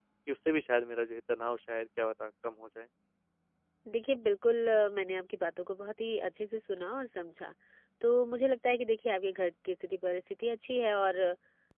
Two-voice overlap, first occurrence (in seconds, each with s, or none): none